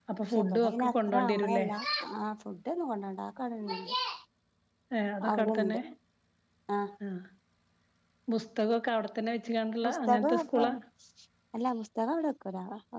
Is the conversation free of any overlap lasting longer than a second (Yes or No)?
No